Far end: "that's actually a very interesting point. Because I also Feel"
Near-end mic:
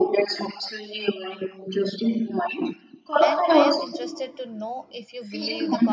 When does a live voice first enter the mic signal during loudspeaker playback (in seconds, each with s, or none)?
3.2 s